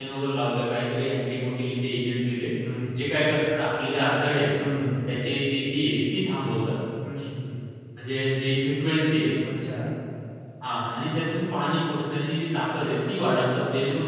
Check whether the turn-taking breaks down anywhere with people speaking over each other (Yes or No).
No